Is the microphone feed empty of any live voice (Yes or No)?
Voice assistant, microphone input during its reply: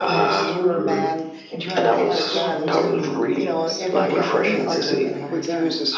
No